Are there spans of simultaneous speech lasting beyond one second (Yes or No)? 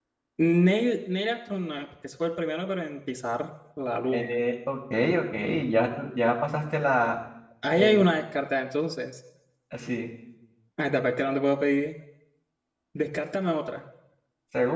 No